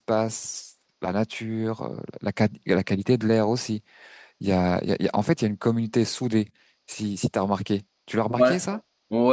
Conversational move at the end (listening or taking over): taking over